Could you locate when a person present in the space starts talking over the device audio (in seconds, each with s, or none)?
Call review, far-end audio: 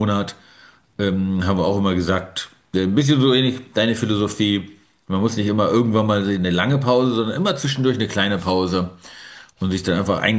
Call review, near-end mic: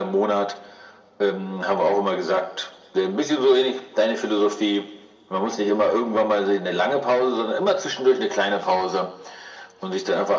none